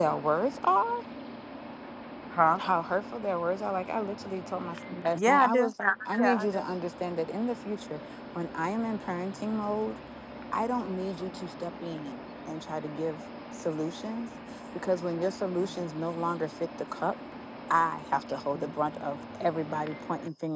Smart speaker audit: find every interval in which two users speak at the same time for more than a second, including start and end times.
none

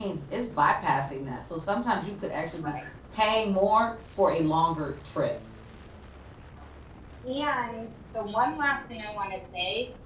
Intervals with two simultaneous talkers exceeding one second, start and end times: none

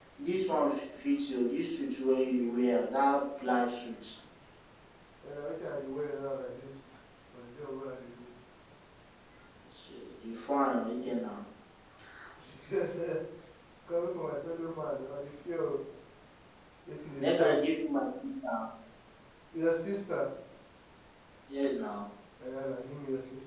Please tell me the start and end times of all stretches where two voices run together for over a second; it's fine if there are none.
none

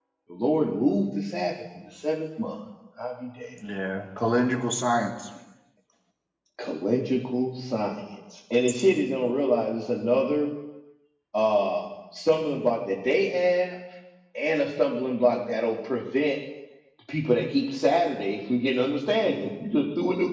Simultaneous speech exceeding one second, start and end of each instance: none

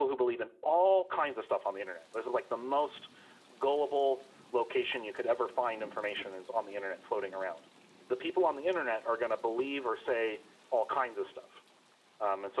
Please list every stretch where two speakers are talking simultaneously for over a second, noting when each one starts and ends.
none

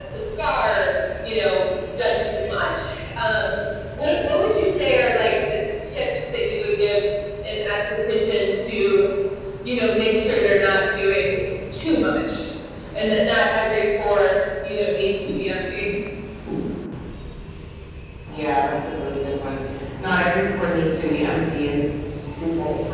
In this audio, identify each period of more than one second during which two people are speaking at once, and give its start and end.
none

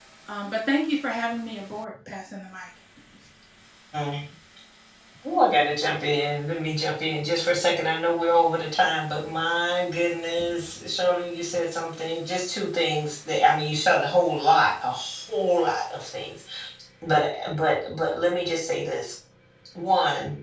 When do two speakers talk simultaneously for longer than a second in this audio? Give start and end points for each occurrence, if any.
none

